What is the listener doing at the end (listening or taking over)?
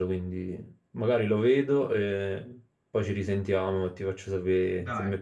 taking over